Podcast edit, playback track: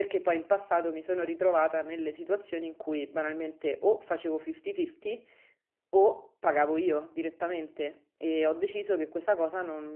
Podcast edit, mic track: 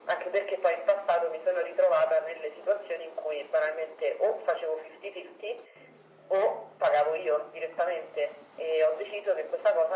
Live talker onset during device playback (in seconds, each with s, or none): none